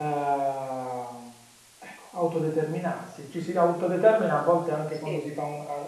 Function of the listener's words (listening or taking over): listening